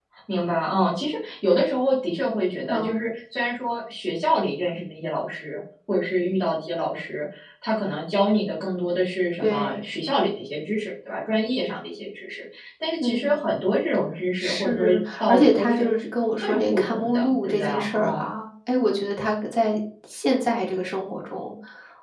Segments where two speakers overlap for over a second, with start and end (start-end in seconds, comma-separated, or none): 14.4-15.9, 16.4-18.2